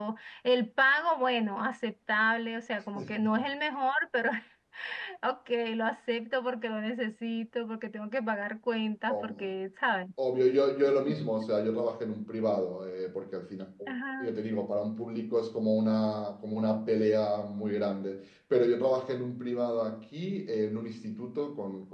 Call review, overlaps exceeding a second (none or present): none